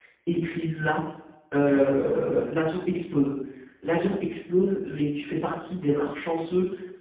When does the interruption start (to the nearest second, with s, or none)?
none